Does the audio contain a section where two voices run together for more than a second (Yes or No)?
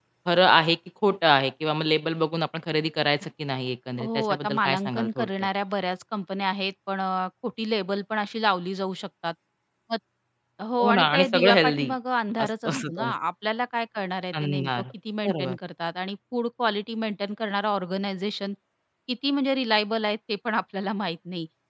Yes